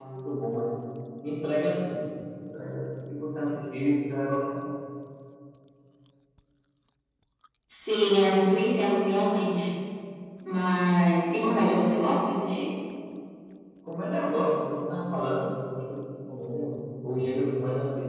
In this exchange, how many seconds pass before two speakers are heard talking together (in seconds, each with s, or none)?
none